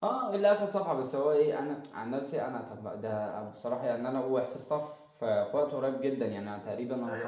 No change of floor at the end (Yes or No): No